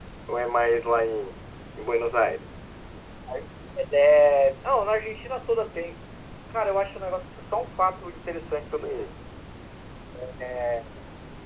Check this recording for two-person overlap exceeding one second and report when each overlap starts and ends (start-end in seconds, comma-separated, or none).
none